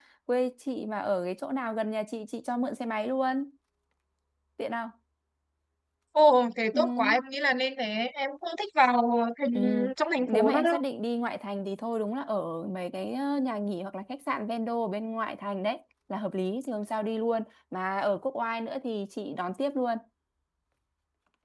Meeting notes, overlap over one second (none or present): none